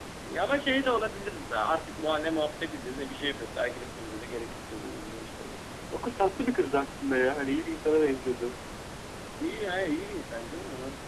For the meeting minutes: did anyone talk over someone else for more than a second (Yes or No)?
No